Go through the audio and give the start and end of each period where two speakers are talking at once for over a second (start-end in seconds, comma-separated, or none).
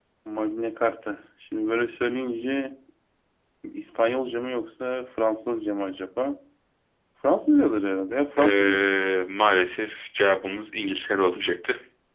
none